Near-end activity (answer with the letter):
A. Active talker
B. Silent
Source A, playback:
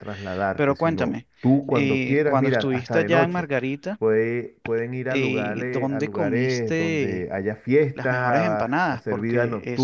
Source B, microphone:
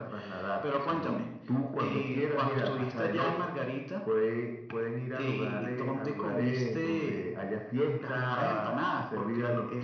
B